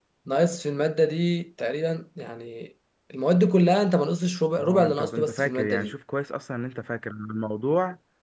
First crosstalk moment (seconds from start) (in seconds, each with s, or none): 4.6 s